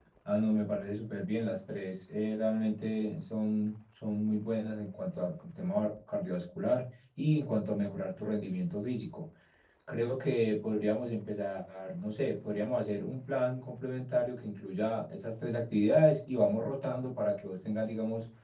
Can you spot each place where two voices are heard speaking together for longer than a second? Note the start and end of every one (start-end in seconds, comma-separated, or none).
none